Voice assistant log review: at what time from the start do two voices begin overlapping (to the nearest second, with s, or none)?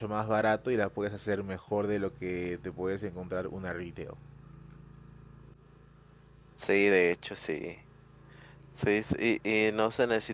none